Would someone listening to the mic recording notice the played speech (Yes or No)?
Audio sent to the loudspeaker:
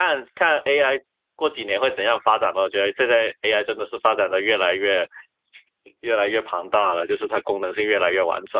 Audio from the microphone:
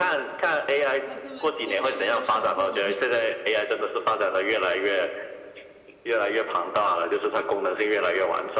Yes